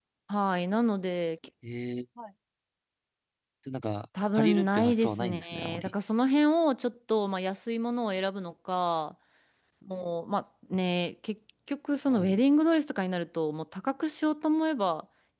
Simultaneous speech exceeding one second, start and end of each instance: 4.3-5.9

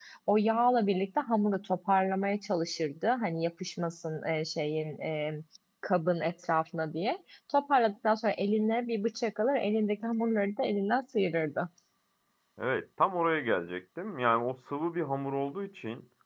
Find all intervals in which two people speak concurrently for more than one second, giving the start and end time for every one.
none

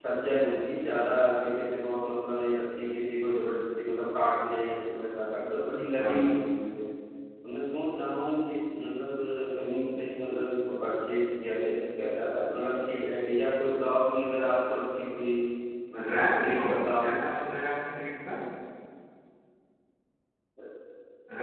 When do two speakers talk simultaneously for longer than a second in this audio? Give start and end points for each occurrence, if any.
16.0-17.2

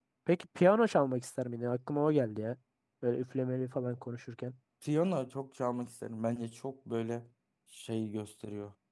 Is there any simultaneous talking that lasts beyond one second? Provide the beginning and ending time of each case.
none

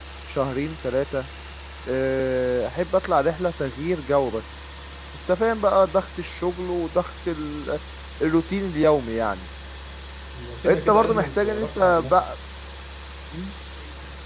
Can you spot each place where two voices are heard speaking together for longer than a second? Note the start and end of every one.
10.6-12.3

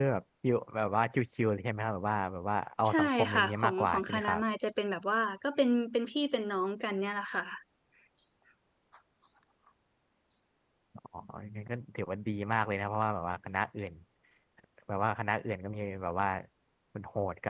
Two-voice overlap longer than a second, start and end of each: 2.9-4.4

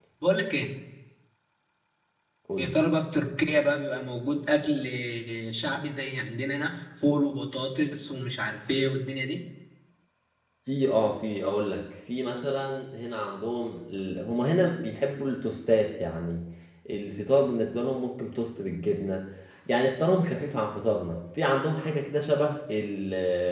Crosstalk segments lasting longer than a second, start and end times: none

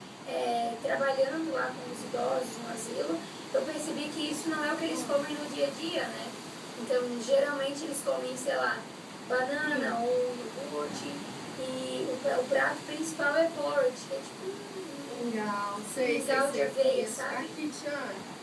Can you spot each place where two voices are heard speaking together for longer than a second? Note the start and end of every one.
16.0-17.6

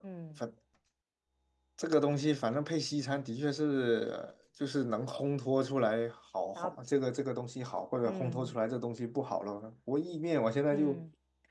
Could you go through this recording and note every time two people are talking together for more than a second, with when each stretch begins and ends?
none

